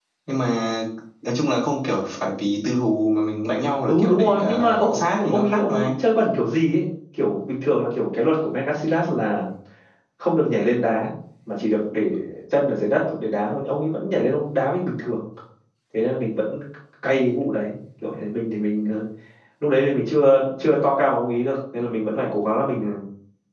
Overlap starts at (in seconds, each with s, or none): 3.9 s